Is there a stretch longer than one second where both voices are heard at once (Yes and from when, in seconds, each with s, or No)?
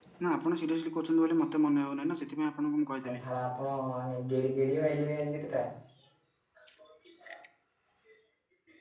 No